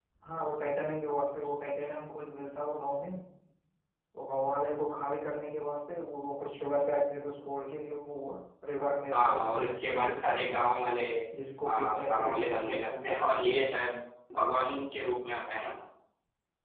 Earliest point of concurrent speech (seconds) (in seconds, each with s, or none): 9.1 s